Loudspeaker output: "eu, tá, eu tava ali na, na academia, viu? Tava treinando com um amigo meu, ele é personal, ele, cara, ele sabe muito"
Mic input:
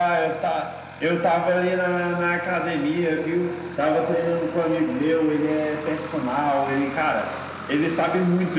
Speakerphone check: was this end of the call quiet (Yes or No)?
Yes